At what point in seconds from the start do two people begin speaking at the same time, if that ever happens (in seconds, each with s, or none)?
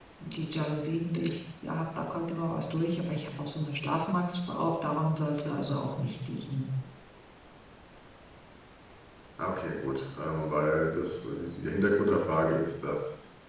none